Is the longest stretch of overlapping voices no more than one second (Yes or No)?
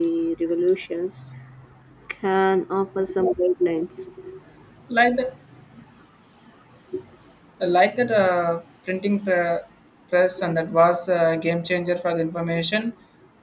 Yes